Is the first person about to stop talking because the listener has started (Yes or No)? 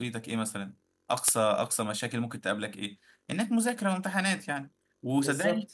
No